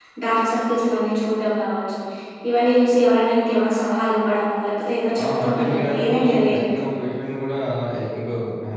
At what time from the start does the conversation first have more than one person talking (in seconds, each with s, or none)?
5.2 s